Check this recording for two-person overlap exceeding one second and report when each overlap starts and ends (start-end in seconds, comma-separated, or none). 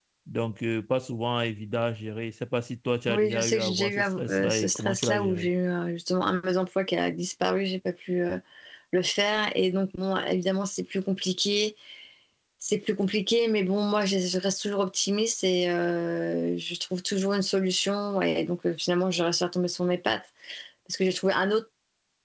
3.1-5.5